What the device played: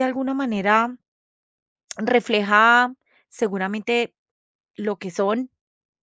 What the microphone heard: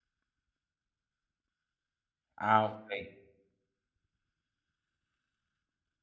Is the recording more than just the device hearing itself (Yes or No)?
Yes